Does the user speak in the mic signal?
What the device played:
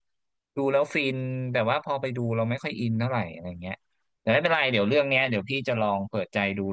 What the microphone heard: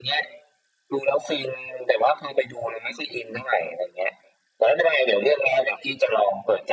No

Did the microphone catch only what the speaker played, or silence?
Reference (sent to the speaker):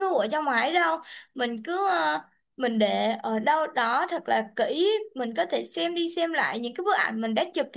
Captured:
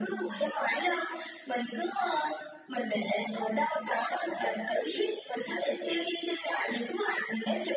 Yes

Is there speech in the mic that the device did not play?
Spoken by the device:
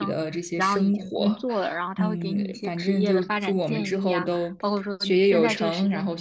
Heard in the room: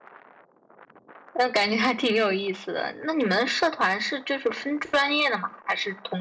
Yes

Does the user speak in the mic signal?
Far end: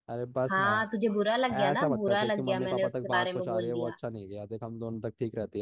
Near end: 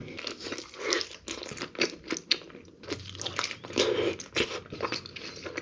No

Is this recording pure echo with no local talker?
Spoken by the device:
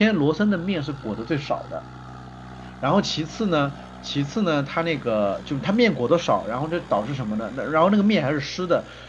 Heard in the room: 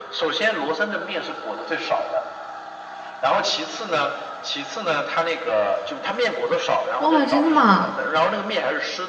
No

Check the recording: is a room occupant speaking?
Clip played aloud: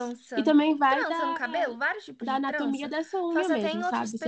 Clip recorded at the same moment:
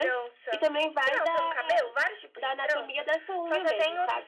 No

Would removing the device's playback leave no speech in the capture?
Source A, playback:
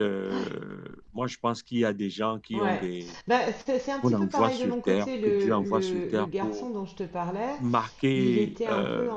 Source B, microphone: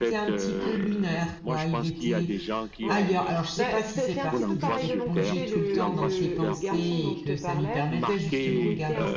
No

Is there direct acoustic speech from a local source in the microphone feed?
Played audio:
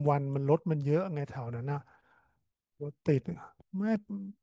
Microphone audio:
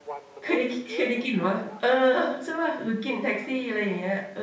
Yes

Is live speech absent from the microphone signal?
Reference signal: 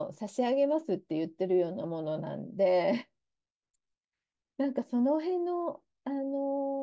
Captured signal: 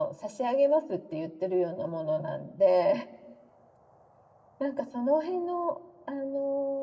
Yes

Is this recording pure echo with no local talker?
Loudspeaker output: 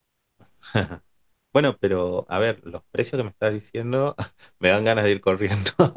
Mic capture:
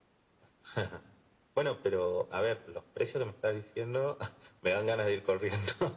Yes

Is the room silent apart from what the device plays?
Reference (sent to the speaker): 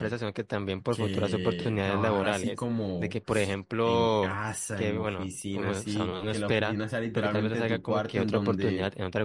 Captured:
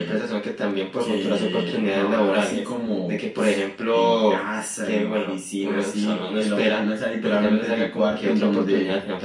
Yes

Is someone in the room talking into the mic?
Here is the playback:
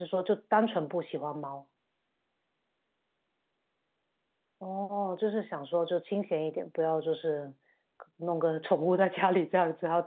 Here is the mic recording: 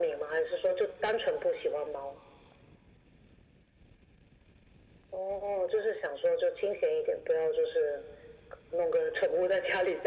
No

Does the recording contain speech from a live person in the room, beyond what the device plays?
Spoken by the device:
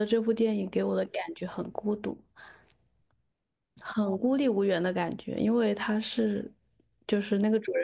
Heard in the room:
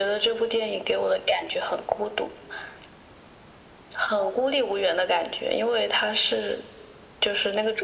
No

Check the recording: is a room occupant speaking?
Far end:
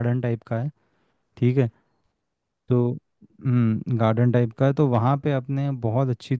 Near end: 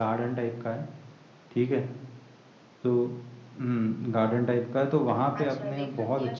Yes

